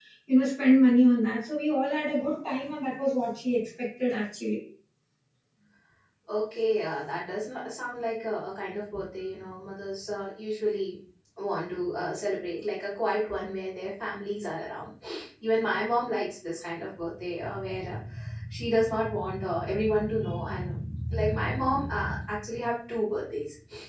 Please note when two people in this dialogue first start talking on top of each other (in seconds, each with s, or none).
none